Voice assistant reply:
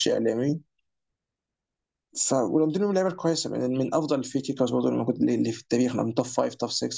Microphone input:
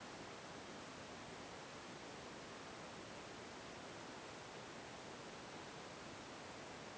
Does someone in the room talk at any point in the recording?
No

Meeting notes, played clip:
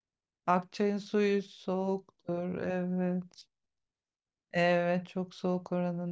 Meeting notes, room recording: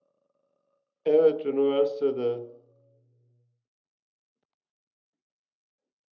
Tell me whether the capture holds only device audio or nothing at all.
No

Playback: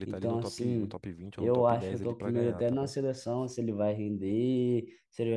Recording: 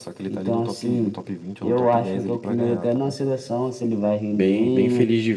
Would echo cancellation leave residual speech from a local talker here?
Yes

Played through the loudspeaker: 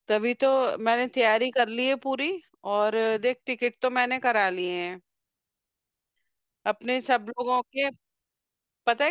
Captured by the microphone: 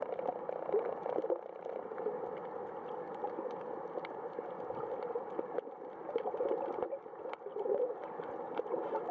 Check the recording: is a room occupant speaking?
No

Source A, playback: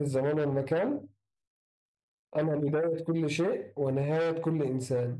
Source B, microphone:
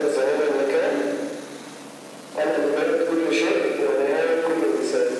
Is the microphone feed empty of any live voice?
Yes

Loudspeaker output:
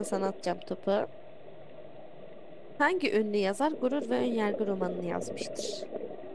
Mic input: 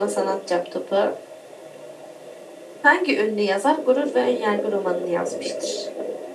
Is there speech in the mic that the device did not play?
No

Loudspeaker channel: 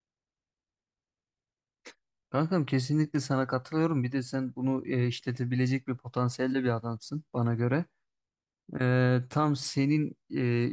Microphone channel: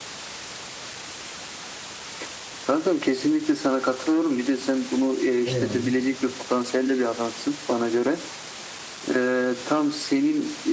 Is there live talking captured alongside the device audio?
Yes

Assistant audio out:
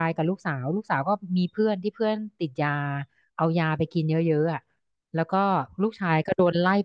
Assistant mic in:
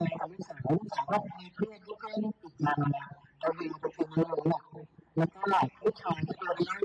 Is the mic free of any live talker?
Yes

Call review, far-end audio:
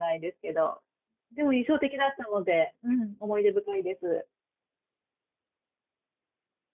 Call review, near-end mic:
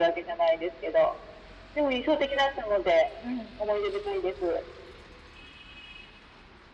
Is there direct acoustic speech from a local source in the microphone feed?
No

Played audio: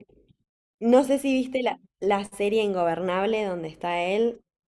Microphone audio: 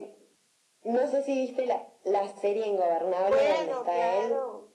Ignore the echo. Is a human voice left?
Yes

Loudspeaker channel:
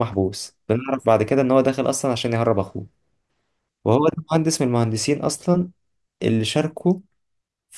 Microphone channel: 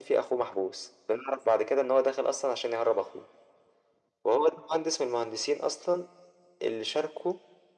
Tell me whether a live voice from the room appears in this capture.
No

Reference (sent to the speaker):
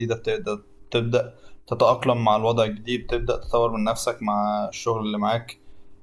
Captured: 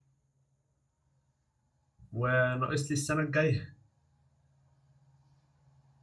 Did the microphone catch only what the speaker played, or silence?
No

